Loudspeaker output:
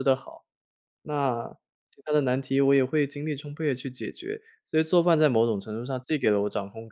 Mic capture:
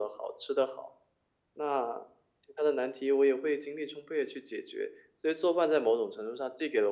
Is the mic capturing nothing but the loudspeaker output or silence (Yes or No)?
Yes